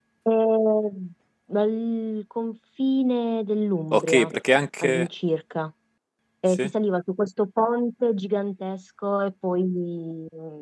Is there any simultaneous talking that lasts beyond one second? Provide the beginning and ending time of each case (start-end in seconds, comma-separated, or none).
none